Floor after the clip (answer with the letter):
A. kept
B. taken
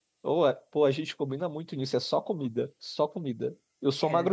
A